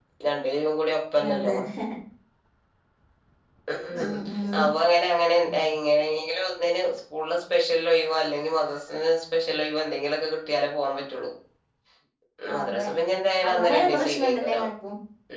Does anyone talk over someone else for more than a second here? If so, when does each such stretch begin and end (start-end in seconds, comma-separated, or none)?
13.4-14.7